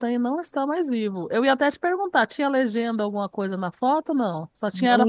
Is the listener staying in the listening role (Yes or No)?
No